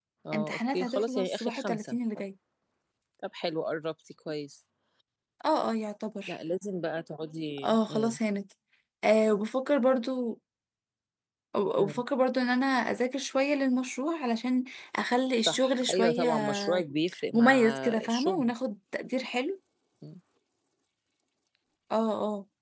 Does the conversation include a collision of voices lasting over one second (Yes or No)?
Yes